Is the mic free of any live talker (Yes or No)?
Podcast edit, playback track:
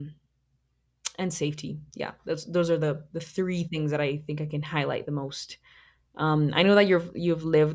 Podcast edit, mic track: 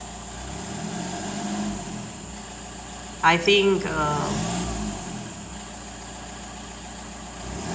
No